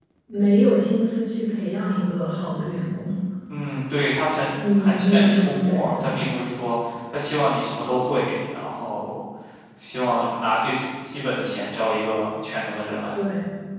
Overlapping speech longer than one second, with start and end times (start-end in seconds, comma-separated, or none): 4.8-6.2